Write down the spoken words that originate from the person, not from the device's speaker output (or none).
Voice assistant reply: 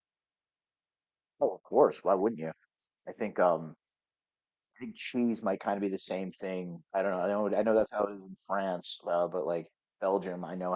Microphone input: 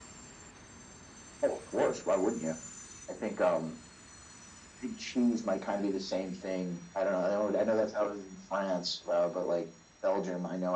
none